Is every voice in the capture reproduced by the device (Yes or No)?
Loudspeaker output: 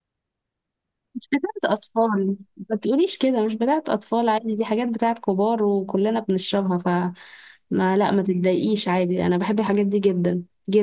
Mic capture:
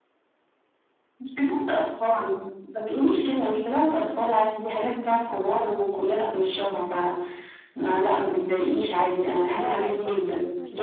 No